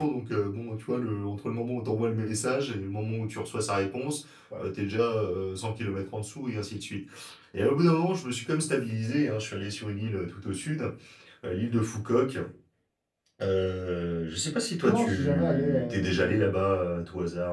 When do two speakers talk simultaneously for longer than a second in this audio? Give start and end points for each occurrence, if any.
14.8-16.4

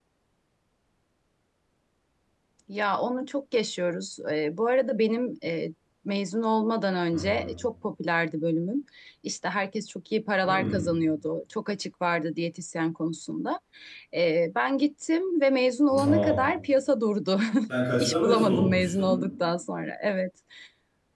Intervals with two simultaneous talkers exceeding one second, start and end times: 18.0-19.2

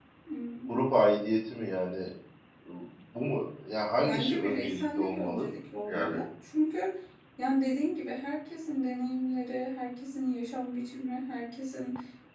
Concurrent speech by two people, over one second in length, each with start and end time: 4.0-5.5

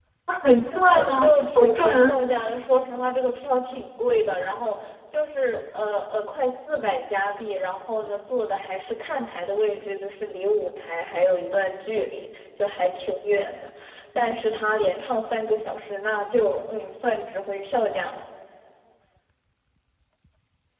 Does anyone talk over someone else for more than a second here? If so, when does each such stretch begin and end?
0.9-2.2

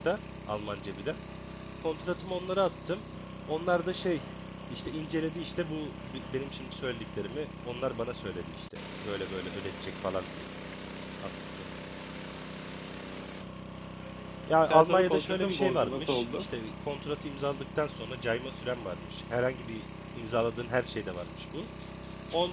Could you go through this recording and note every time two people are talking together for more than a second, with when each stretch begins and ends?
14.7-16.5

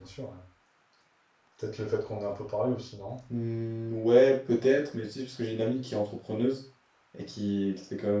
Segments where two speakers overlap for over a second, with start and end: none

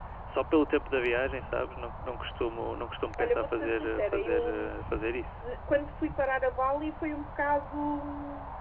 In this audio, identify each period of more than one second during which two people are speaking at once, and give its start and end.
3.2-4.7

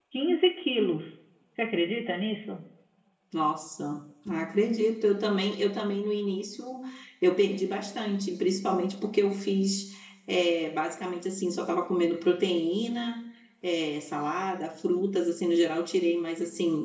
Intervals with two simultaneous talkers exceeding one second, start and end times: none

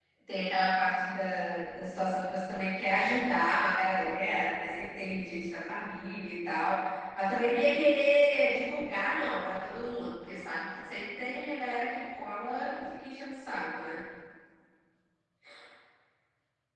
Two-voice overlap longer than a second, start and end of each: none

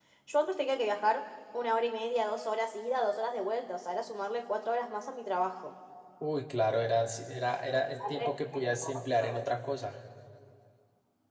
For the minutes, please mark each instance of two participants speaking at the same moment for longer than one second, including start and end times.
7.7-9.4

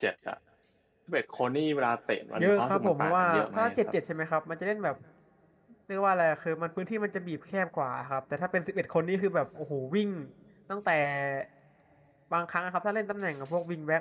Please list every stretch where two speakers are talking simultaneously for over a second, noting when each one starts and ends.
2.4-3.8

